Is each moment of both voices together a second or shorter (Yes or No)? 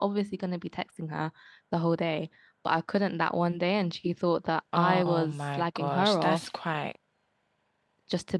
No